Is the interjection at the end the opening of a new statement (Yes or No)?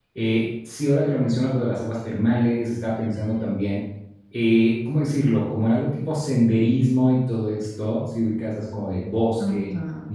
No